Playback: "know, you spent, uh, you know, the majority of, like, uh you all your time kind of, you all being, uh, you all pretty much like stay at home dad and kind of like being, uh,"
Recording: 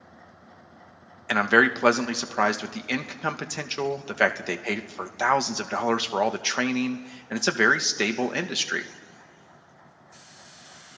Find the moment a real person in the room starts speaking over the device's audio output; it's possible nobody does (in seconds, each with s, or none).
1.3 s